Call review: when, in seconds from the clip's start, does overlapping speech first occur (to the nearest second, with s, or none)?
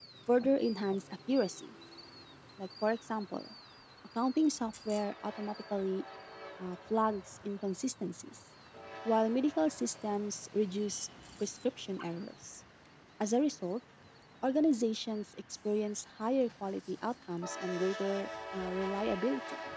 none